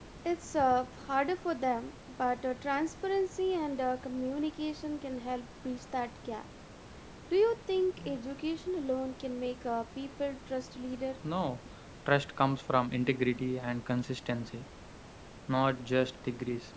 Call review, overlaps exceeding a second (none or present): none